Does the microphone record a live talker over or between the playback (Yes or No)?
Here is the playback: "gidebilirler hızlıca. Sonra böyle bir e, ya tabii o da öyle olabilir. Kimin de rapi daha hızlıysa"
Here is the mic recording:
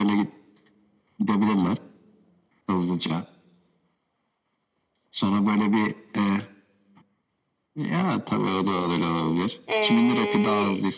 Yes